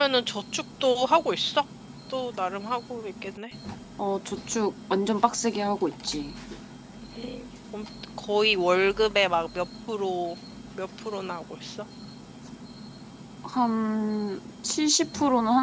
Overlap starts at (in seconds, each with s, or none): none